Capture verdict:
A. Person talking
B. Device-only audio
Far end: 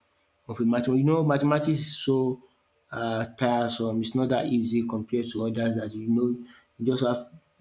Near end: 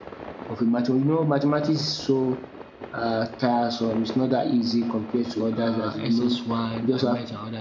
A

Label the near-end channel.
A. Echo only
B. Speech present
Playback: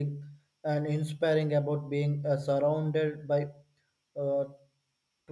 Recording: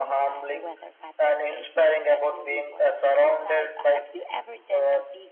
B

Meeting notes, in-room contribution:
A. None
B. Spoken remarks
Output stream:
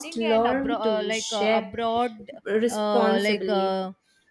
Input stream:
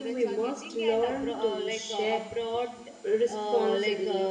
A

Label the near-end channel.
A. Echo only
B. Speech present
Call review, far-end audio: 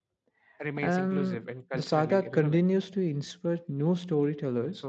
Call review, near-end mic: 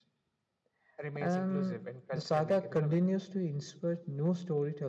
A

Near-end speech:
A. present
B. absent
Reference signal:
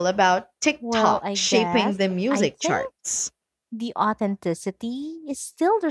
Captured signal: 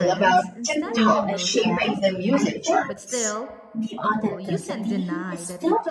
A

